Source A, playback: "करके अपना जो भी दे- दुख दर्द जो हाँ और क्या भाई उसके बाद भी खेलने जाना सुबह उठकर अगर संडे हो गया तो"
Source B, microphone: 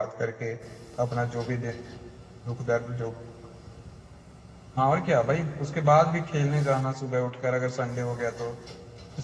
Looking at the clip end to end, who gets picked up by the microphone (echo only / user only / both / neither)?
echo only